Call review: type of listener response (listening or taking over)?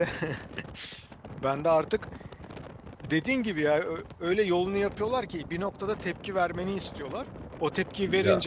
listening